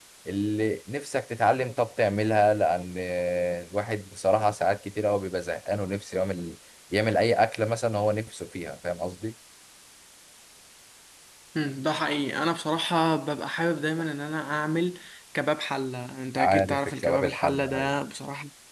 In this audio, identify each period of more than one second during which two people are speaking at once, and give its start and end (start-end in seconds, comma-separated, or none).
16.4-17.9